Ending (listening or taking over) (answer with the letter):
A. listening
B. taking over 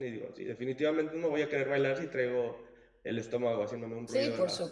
B